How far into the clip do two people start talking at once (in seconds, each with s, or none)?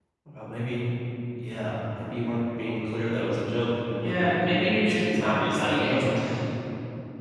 4.0 s